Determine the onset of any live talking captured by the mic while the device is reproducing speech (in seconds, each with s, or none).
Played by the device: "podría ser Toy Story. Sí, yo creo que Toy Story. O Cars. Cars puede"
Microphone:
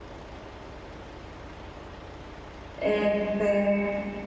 2.8 s